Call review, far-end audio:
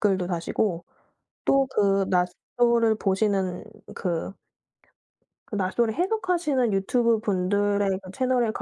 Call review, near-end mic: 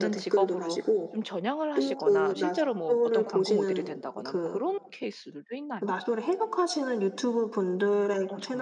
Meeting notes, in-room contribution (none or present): present